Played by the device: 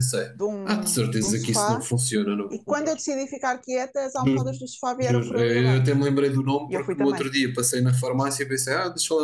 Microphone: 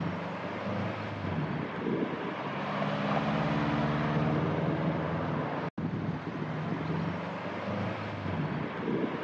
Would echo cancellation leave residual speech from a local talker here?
No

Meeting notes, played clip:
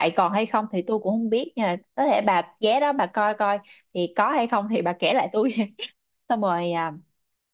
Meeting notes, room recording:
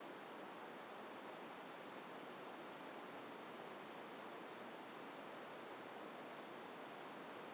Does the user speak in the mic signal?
No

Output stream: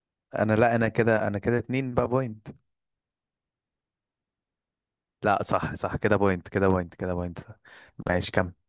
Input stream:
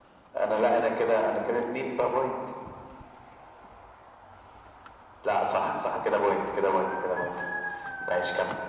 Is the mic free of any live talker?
Yes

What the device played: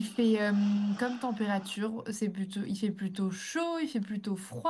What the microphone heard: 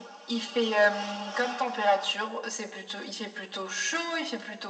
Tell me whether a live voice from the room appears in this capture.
No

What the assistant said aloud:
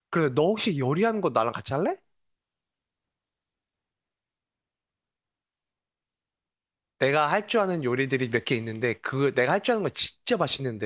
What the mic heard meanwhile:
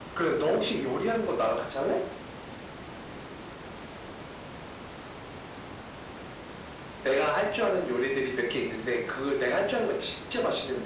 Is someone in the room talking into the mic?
No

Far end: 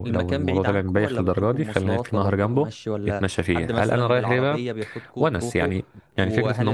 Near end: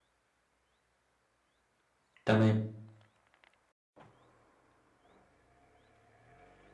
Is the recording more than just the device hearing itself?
Yes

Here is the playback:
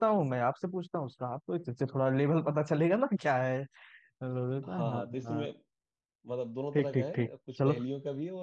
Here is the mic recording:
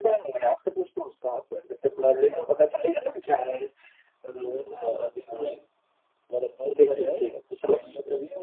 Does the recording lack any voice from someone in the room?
Yes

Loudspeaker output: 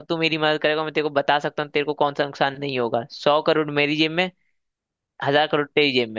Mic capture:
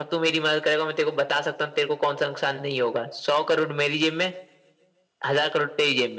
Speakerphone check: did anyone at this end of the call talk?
No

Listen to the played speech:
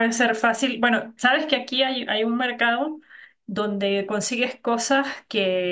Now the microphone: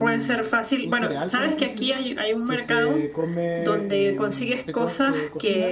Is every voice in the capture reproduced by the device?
No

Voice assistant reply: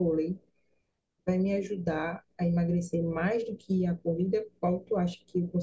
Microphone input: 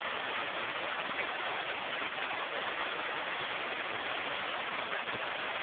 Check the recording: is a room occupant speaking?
No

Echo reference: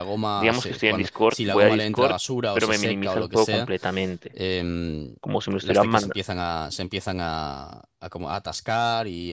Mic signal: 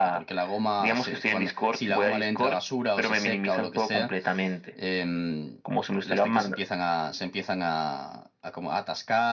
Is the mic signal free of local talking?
Yes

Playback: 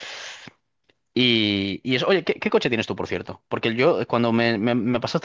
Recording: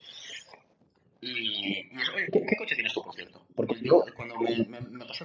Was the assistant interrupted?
No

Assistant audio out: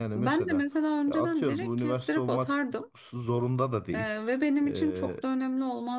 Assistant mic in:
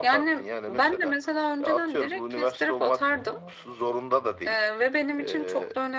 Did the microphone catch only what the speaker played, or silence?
Yes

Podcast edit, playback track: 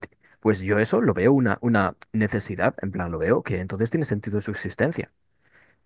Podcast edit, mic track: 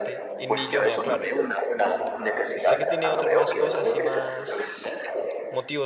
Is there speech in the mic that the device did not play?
Yes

